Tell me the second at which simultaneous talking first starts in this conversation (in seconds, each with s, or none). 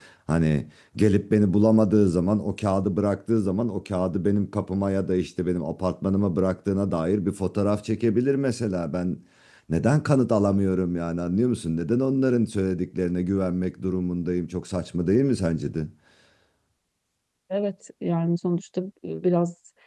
none